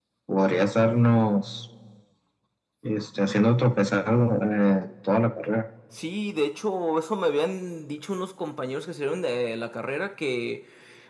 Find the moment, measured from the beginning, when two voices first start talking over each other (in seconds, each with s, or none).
none